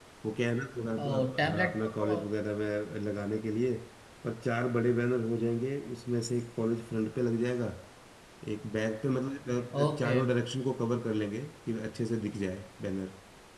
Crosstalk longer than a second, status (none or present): present